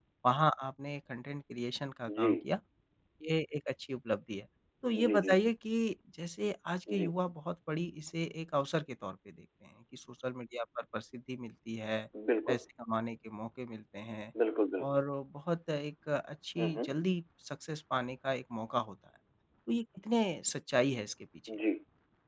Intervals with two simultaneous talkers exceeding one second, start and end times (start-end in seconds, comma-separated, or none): none